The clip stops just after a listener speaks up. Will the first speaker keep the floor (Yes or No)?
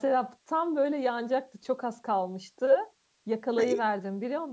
Yes